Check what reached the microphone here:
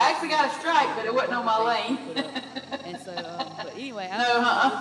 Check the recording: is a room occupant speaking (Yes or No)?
Yes